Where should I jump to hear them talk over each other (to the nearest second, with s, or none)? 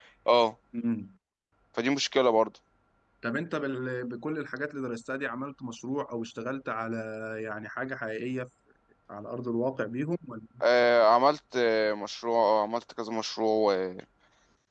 none